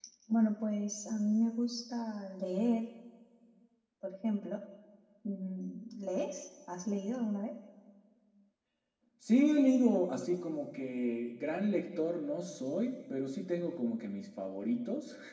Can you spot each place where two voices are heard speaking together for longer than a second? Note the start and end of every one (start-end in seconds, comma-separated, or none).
none